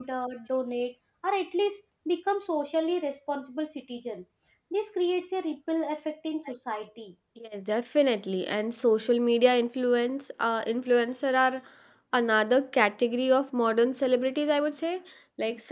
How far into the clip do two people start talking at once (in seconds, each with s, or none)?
none